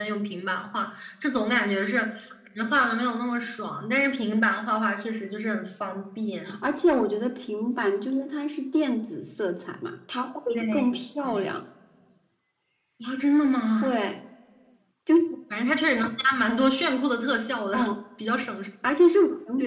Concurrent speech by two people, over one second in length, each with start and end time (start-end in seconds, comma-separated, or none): none